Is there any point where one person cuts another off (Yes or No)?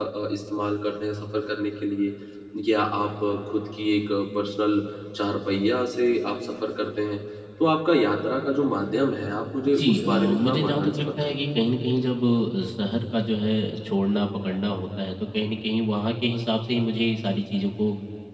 Yes